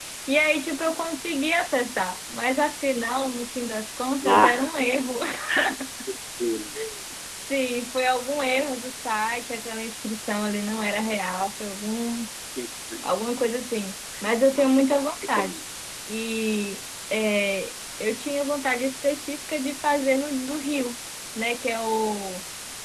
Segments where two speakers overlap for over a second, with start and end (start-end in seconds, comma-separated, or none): none